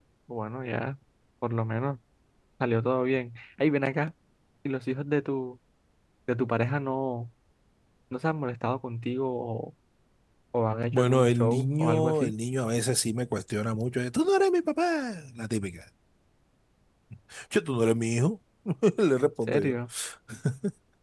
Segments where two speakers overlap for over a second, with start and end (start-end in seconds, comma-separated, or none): 10.9-12.3